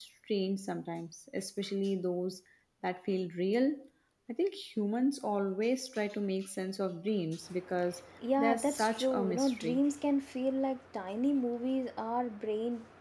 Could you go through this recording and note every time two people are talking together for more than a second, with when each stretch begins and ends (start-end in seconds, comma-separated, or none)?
8.4-9.8